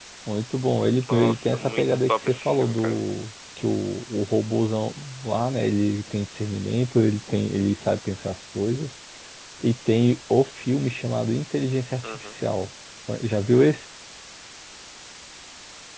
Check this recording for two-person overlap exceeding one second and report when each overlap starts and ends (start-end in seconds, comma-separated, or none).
1.1-3.0